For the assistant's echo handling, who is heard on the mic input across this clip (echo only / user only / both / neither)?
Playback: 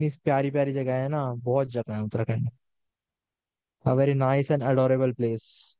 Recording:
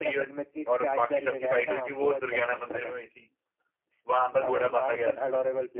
both